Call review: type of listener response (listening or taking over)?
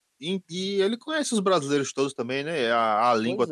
listening